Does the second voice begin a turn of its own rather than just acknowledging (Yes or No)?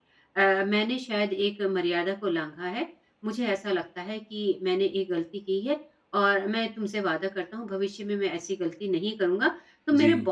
No